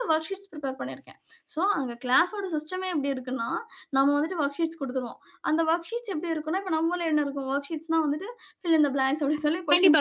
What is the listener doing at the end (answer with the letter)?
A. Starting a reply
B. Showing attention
A